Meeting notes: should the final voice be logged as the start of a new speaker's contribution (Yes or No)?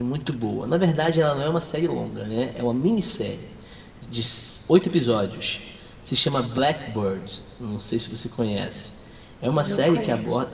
No